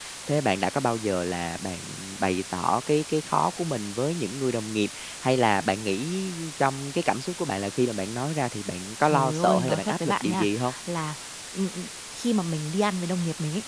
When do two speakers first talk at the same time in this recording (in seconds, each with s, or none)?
9.0 s